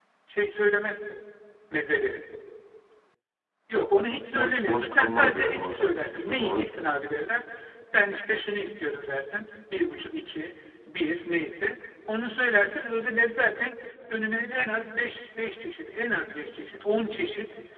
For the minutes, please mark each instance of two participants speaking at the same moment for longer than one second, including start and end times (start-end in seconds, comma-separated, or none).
4.3-6.7